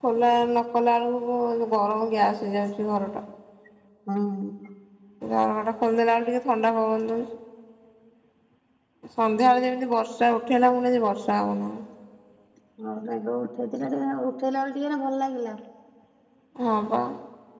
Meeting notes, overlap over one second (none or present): none